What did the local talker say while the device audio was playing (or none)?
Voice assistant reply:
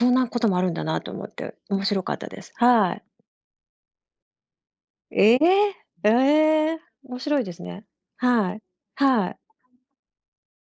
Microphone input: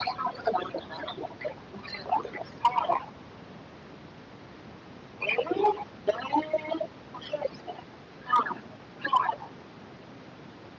none